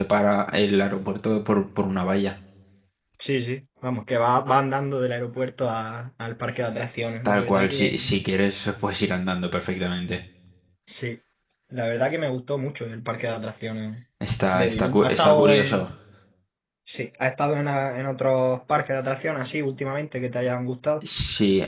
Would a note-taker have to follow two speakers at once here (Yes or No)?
Yes